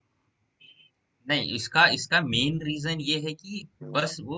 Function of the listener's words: listening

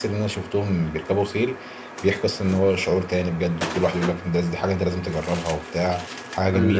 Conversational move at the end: taking over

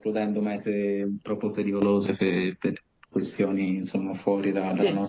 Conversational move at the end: listening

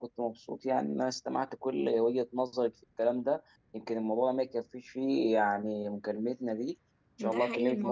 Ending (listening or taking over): taking over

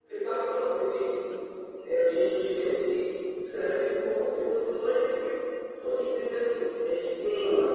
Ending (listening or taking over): taking over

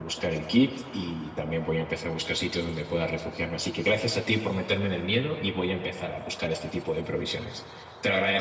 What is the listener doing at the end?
taking over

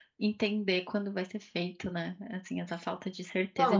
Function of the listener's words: taking over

